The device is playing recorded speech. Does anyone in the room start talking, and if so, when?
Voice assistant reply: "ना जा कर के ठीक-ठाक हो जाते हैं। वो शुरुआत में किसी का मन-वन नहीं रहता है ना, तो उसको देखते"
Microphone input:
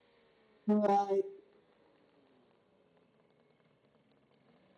0.7 s

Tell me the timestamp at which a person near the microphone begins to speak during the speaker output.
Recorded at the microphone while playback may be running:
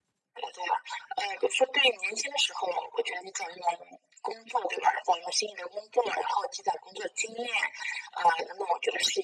none

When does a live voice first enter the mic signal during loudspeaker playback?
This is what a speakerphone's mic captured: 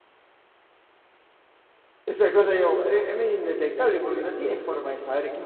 2.0 s

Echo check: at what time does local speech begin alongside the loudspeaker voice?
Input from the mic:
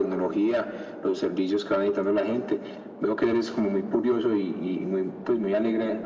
none

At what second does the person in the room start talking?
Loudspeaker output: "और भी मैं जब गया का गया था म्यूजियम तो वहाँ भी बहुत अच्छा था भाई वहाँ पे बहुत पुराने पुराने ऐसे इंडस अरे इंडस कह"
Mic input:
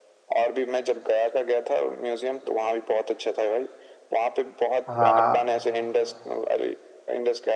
4.9 s

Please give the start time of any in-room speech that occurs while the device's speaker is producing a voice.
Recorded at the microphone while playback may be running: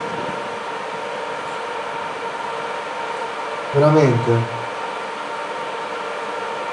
3.7 s

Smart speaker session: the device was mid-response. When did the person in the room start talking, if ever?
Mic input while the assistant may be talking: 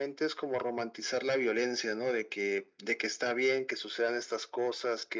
none

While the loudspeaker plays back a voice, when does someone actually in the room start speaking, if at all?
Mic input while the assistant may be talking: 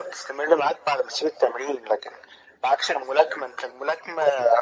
none

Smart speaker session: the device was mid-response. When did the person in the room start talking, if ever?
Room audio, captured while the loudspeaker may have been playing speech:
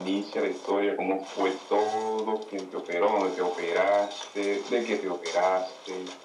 none

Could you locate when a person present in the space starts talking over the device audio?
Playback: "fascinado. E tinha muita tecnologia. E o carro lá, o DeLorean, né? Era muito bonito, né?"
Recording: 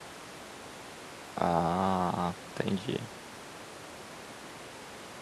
1.4 s

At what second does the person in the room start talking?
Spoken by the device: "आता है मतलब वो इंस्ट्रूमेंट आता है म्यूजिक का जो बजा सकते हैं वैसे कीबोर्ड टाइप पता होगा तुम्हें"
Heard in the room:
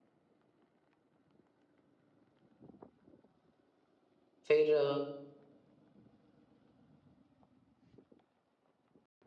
4.5 s

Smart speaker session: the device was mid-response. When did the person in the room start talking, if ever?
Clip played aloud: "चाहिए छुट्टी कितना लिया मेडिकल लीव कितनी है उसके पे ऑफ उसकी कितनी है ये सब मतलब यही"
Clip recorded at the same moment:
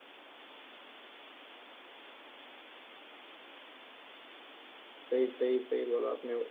5.1 s

